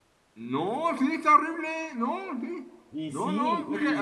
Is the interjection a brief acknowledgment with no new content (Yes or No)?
No